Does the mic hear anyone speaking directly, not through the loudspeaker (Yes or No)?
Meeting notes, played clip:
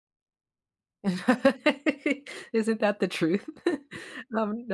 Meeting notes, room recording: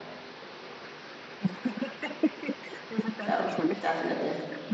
Yes